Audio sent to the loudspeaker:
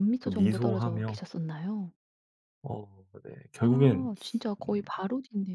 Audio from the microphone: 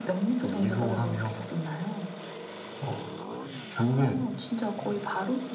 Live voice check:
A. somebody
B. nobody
B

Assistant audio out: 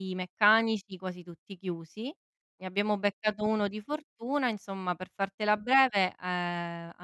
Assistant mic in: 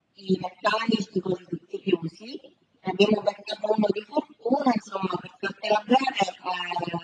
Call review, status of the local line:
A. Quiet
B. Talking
A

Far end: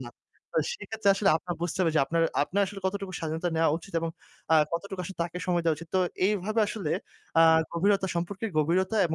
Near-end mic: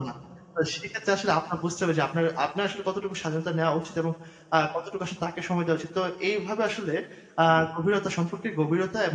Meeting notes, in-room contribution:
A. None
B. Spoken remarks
A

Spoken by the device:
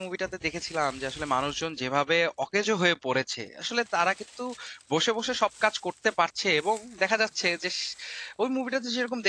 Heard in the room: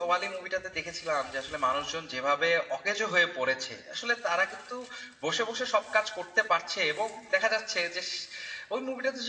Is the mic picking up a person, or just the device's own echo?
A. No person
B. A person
A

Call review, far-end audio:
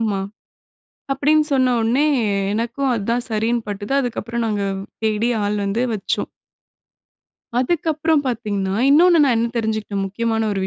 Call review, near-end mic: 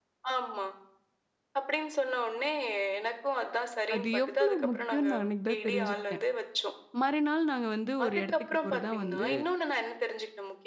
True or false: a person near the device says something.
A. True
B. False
A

